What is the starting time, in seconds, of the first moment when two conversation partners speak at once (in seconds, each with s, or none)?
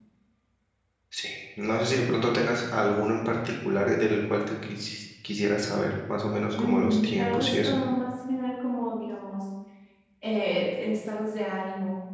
6.5 s